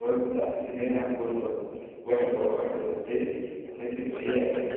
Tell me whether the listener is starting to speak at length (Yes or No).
Yes